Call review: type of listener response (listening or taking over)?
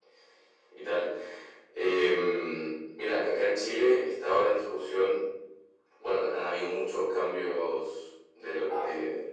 listening